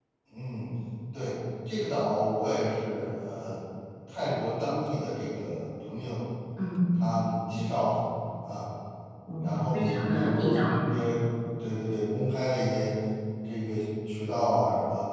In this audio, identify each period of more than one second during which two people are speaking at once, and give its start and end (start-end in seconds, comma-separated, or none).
9.4-10.8